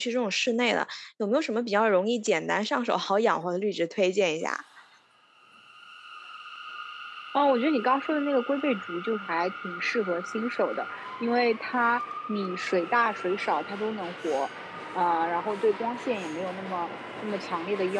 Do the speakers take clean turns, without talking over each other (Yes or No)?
Yes